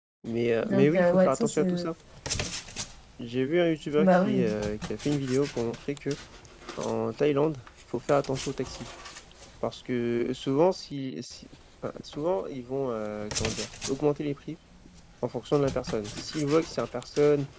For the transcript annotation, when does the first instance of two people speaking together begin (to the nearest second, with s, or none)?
1 s